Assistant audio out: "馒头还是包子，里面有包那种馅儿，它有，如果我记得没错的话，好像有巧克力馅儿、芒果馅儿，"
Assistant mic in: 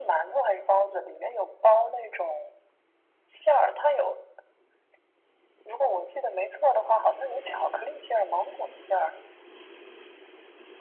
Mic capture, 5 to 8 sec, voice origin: echo only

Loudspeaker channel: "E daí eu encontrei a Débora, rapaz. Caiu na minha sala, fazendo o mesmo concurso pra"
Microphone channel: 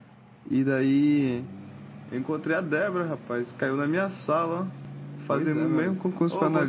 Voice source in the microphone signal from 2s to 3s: echo only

